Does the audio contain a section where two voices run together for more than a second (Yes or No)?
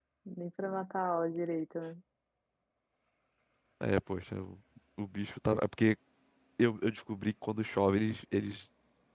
No